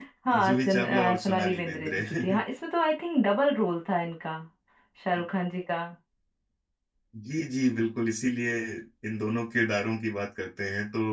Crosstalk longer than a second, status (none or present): present